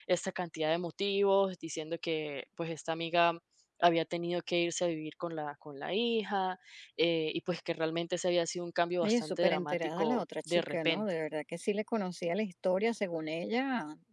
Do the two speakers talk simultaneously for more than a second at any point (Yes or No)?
Yes